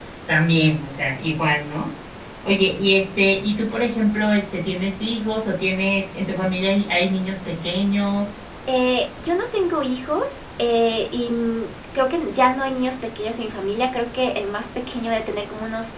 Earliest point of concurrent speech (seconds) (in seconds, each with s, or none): none